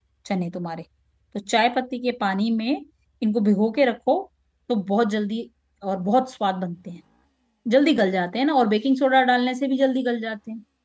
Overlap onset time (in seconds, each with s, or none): none